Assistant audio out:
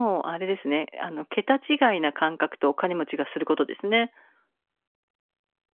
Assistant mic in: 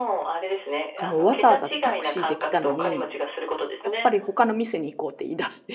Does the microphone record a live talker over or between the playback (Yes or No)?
Yes